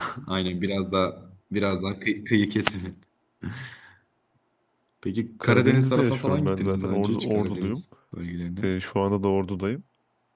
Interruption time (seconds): 5.4 s

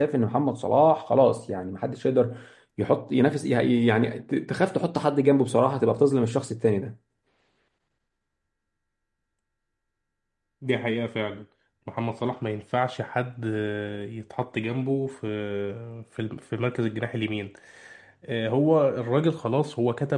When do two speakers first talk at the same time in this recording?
none

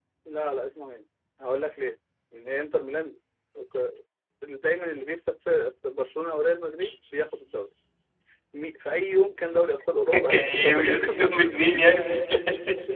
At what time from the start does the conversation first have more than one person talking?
10.3 s

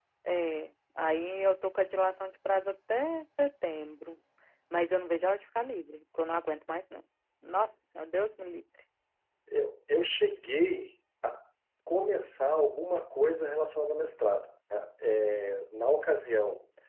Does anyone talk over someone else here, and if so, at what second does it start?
none

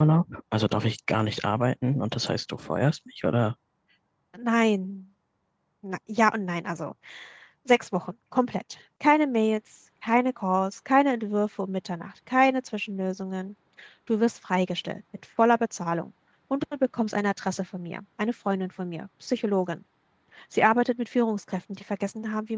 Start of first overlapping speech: none

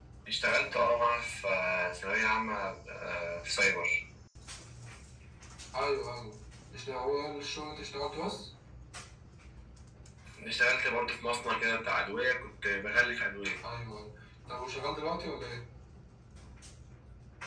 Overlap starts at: none

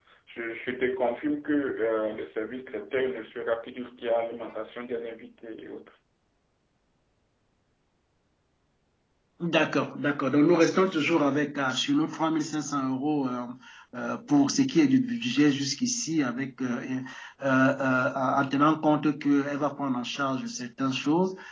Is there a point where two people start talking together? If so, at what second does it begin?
none

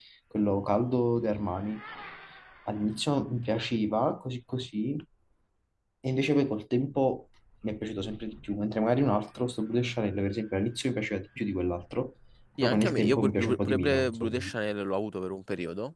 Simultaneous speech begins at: 12.6 s

